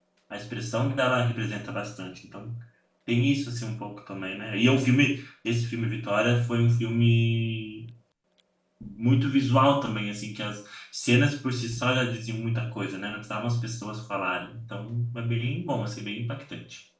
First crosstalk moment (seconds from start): none

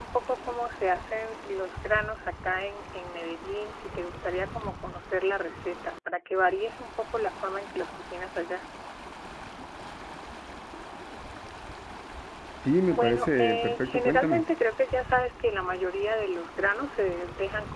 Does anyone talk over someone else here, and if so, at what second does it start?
12.9 s

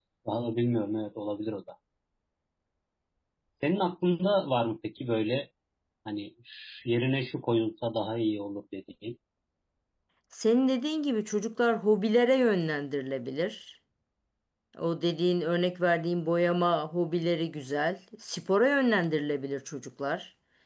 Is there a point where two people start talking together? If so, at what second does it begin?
none

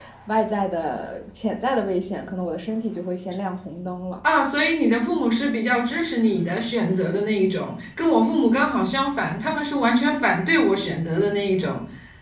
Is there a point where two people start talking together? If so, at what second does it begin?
none

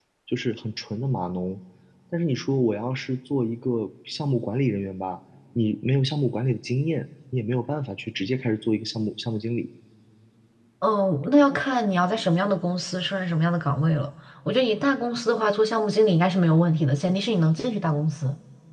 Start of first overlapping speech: none

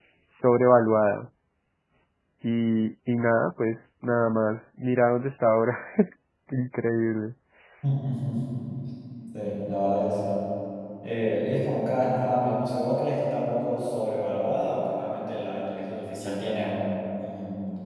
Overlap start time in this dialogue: none

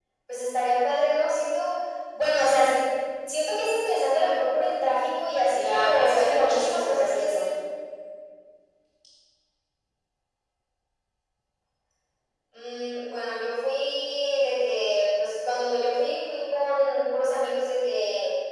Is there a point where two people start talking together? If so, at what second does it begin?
5.5 s

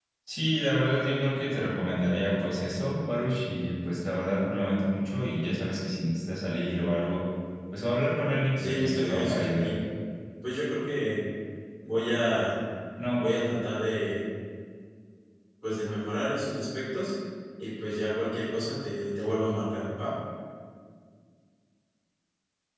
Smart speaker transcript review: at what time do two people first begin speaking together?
8.6 s

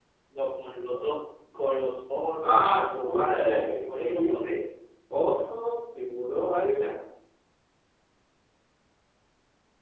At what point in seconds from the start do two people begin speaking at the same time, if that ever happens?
2.4 s

